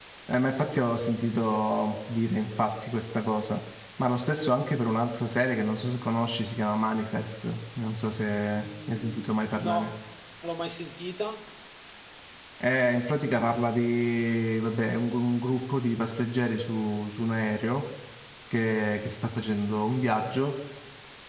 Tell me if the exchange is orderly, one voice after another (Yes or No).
No